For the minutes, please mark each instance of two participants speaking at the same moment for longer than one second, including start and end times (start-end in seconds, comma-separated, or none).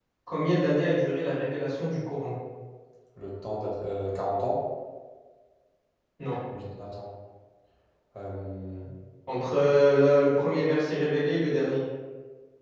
none